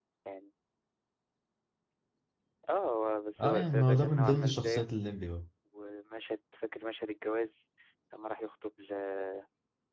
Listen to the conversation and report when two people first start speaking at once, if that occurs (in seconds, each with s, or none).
3.4 s